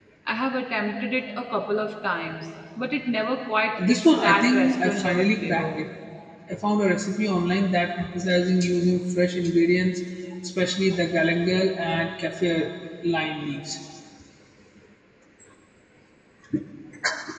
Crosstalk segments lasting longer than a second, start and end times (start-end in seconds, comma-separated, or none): 3.9-5.8